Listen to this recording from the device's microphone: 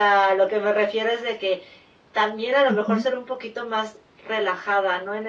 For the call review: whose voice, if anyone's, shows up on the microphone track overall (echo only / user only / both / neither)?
both